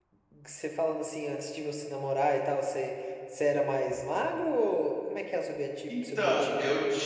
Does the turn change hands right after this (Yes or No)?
Yes